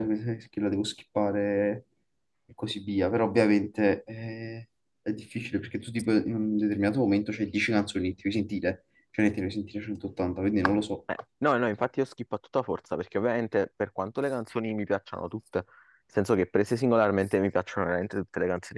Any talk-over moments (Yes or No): No